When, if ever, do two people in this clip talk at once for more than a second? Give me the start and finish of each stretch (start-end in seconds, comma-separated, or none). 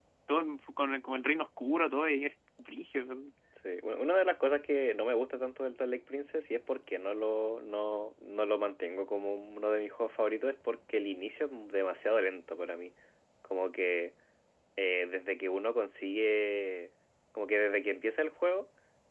none